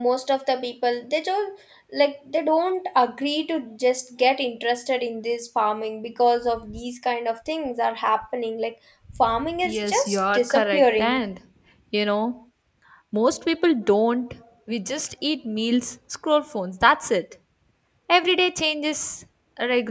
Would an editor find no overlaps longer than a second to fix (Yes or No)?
No